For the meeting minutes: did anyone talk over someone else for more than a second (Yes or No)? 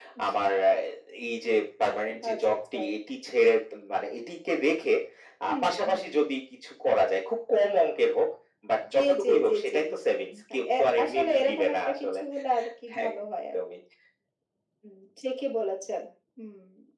Yes